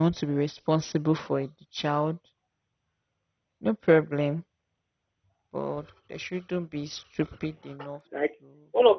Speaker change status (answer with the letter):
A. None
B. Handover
B